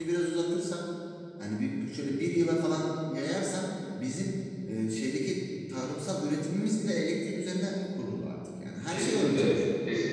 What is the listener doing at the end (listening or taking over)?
taking over